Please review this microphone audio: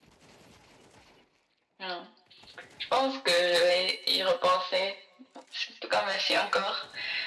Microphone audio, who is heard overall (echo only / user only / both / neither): echo only